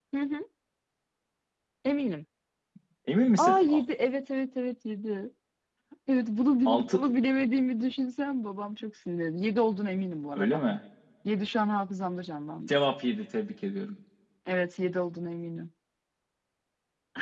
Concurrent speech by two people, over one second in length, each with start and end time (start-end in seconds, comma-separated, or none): none